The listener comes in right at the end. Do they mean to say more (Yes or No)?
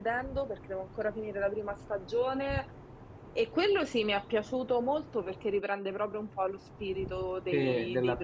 Yes